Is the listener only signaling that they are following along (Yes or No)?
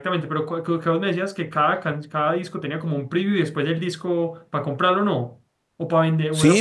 No